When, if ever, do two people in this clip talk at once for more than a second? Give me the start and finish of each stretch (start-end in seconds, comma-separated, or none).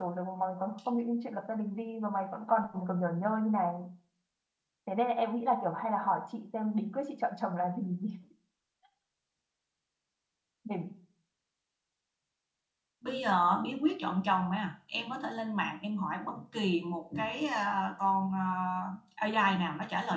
none